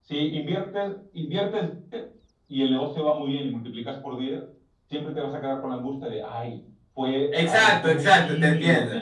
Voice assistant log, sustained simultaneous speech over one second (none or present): present